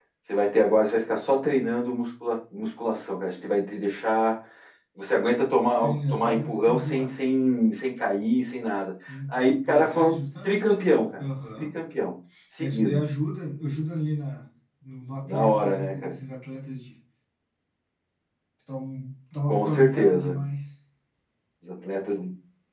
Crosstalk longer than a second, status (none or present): present